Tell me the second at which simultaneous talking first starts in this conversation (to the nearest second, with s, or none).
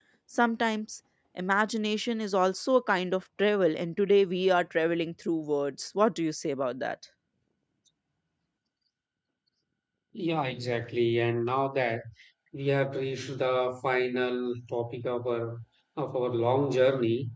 none